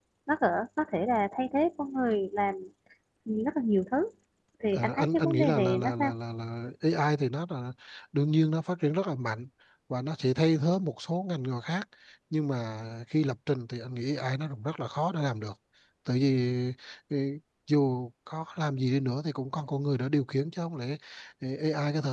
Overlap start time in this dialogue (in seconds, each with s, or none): 4.7 s